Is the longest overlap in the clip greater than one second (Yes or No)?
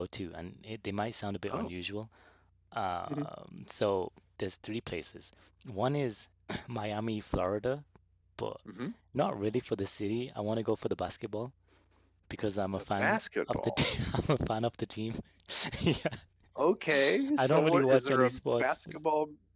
Yes